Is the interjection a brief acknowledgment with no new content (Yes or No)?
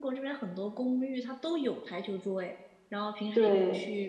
Yes